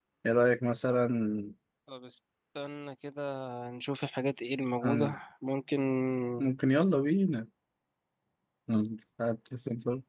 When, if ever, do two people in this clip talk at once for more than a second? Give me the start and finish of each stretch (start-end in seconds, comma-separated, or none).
none